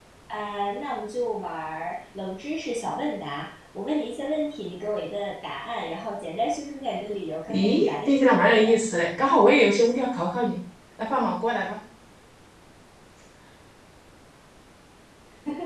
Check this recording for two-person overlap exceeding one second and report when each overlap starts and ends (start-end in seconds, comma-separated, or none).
7.5-8.7